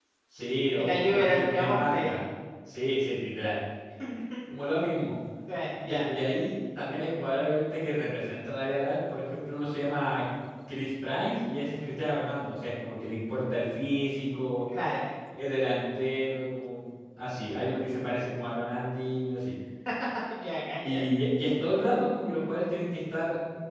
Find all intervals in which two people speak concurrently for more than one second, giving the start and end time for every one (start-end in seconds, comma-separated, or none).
0.7-2.1